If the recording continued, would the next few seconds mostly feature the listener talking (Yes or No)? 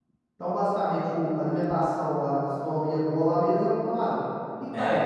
Yes